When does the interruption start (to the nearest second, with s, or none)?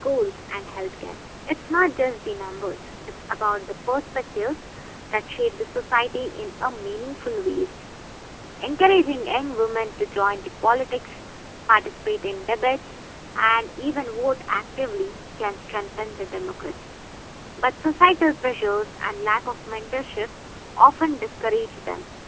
none